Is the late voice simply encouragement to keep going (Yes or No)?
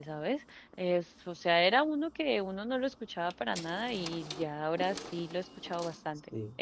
No